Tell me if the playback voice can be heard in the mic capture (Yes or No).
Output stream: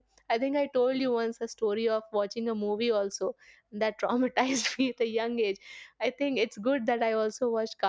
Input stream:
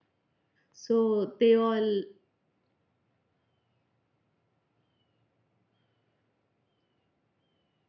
No